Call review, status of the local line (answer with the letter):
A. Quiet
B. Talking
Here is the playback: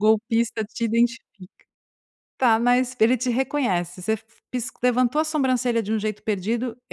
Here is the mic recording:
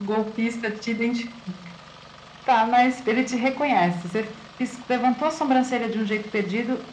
A